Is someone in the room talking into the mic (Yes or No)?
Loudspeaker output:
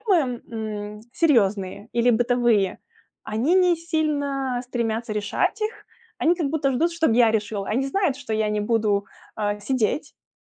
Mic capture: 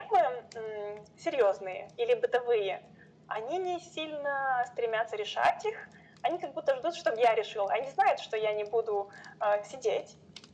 No